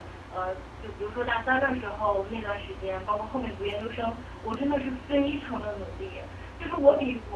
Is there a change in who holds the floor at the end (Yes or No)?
No